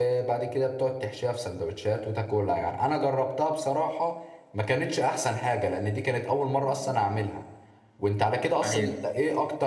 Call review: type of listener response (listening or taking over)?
listening